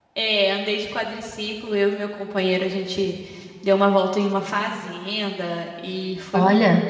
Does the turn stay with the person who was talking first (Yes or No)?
Yes